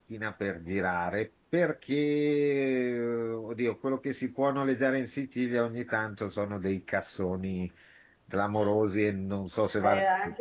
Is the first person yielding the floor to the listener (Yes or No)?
Yes